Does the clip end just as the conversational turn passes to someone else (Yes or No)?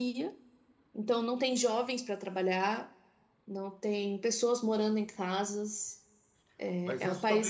Yes